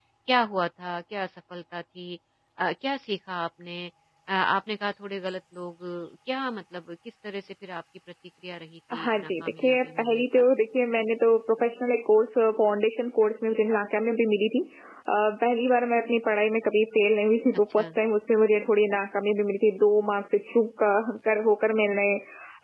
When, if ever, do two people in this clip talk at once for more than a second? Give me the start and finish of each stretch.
8.9-10.5

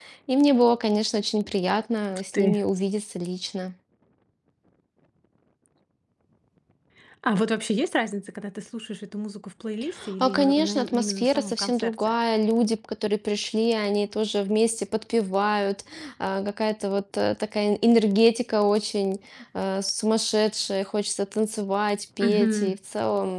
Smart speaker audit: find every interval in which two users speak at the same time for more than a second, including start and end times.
10.2-11.9

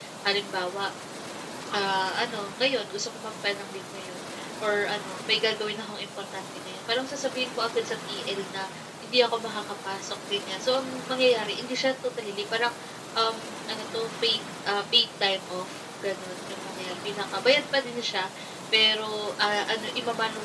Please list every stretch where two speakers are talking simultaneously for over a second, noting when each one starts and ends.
none

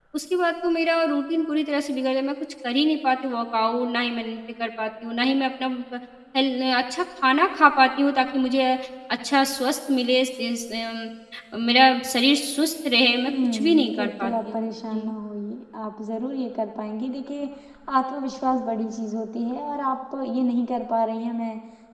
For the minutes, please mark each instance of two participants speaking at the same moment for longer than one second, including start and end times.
13.3-15.1

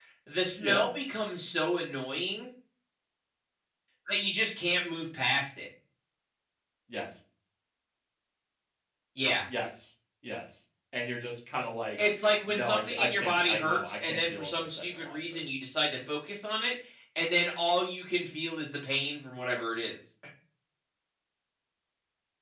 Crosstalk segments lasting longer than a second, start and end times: 12.5-15.4

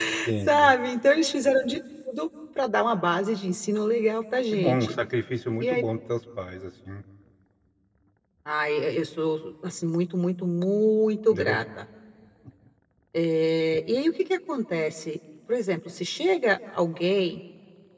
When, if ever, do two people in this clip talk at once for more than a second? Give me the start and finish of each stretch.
none

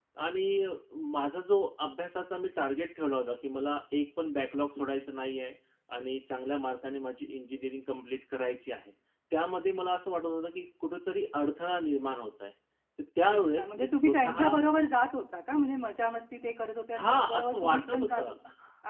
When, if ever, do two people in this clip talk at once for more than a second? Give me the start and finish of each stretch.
13.2-14.5, 17.0-18.3

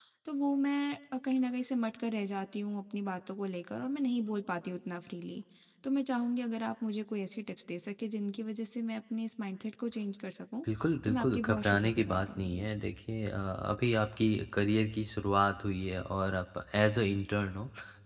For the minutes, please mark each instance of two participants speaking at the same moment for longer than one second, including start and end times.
11.0-12.7

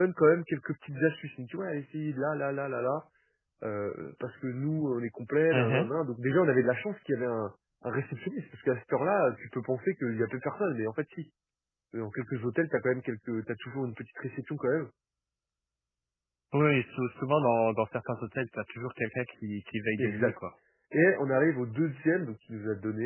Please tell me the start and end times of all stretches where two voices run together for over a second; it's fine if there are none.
none

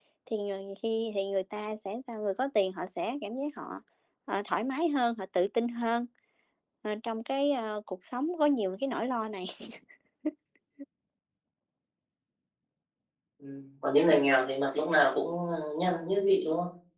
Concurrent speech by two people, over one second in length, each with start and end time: none

